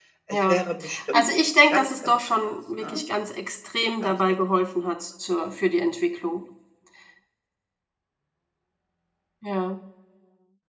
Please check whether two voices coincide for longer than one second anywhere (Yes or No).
Yes